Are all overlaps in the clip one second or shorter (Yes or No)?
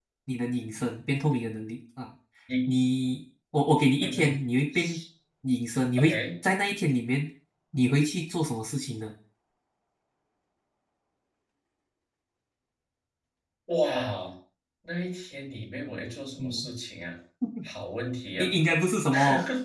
Yes